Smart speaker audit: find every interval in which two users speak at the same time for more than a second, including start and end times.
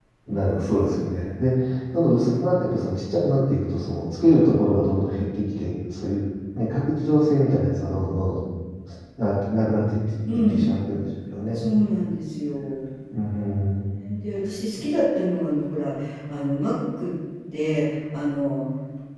none

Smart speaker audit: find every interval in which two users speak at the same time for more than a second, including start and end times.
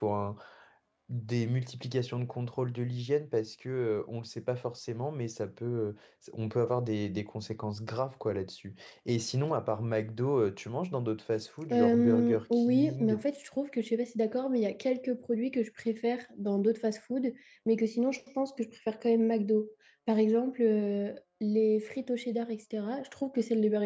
11.7-13.2

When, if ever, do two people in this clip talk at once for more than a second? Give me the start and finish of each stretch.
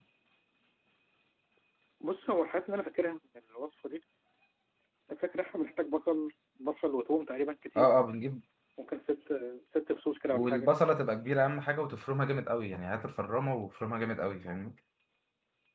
none

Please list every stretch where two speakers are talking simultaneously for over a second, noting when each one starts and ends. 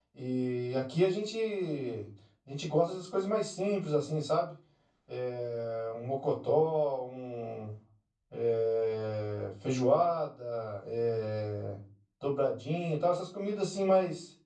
none

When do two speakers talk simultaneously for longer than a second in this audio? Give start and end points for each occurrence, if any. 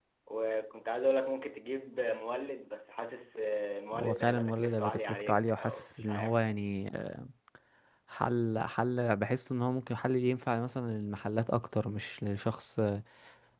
3.9-6.4

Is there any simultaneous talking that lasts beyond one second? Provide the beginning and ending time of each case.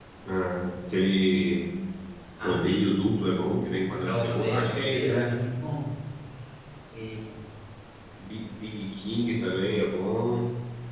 4.0-5.4

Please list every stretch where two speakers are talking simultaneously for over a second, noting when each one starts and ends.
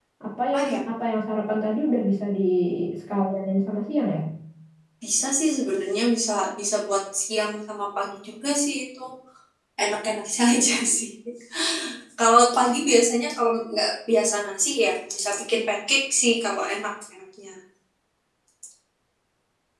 none

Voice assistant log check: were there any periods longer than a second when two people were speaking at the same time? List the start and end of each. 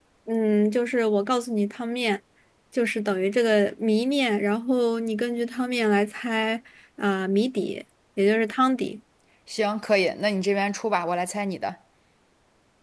none

